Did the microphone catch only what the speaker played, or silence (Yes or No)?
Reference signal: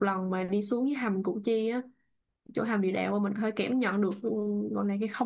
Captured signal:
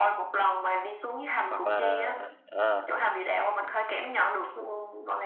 No